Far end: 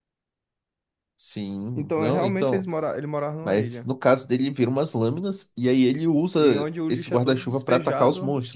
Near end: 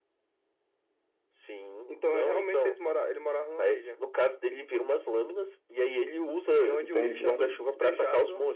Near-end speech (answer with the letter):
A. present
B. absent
A